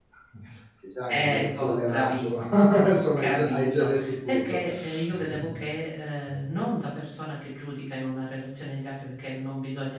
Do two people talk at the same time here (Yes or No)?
Yes